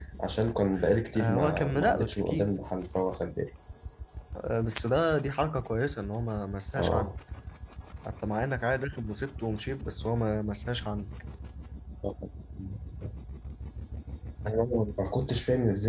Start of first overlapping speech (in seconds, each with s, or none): 1.2 s